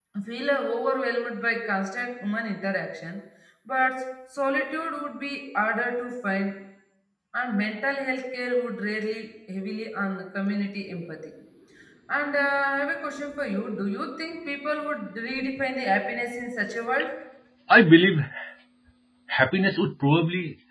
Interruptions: none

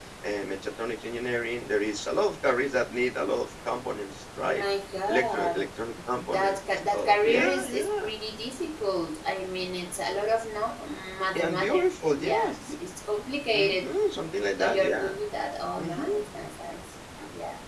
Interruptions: present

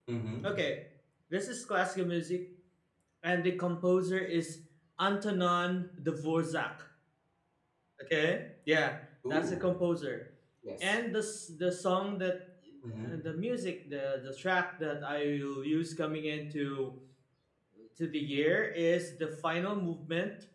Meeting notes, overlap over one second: none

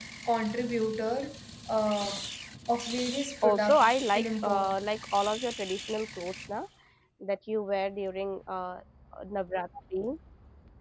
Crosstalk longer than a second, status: present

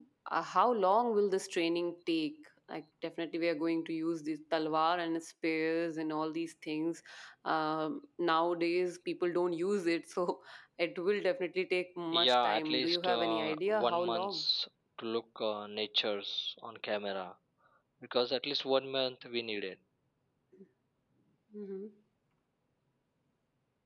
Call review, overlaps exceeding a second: present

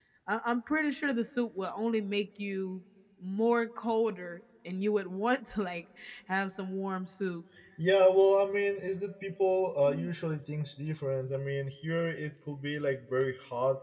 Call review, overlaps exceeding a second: none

